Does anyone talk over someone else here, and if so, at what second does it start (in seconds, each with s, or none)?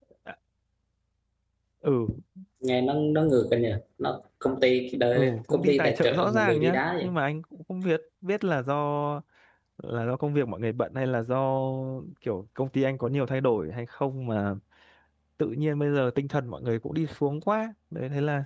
5.1 s